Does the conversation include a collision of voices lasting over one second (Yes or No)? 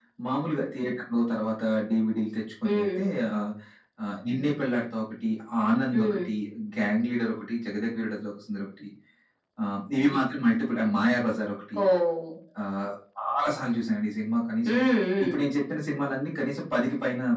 No